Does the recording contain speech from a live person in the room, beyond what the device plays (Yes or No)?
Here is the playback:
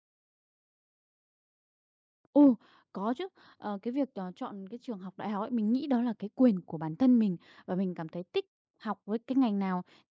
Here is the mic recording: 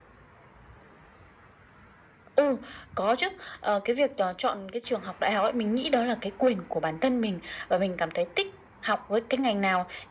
No